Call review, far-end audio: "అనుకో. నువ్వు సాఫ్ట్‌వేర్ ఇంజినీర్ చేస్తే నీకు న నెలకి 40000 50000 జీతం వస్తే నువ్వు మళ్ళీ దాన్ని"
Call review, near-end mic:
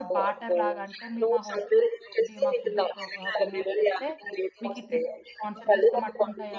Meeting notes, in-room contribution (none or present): present